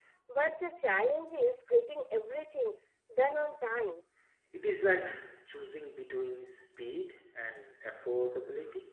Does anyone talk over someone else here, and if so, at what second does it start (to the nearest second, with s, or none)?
none